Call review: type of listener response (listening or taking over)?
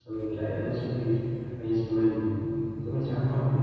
listening